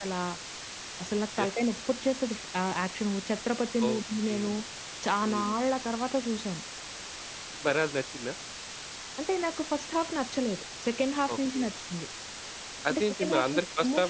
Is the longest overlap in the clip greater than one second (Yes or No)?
Yes